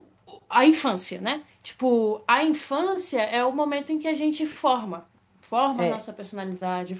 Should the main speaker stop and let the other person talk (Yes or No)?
No